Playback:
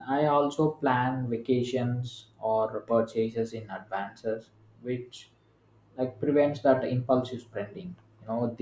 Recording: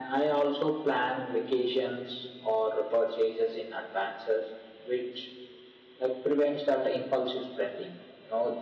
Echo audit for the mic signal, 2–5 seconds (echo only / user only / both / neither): echo only